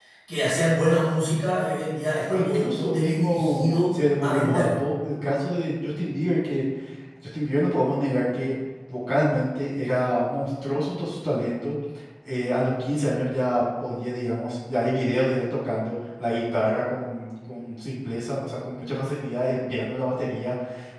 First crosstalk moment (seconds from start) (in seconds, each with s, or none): 2.3 s